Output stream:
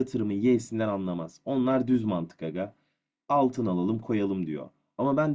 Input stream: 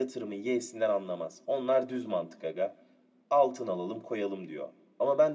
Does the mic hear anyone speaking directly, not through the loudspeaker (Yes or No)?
No